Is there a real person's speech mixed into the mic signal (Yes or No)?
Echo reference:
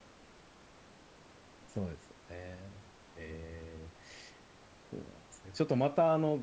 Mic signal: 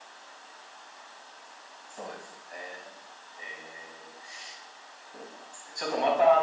No